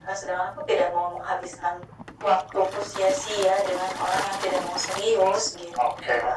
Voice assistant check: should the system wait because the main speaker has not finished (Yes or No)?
No